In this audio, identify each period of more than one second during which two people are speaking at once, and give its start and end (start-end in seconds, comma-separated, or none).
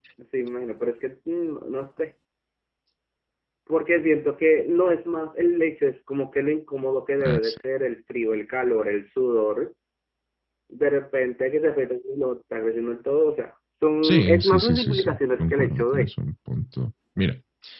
14.0-16.1